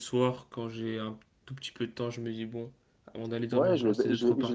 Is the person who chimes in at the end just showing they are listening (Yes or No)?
No